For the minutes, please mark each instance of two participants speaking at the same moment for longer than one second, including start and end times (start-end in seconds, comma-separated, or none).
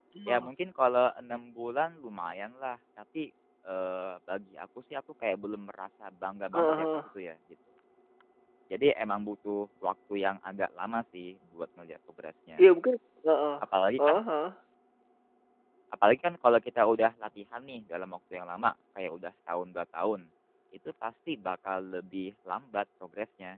none